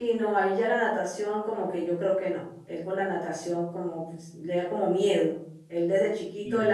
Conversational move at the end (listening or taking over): listening